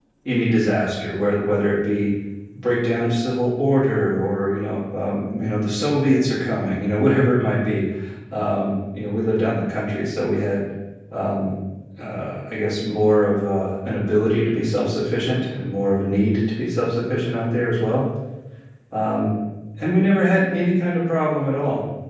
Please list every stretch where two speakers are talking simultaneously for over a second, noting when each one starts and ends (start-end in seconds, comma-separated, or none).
none